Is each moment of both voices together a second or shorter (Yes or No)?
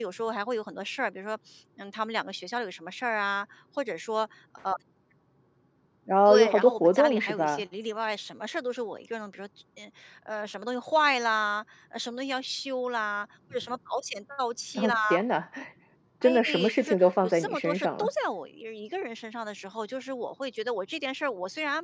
No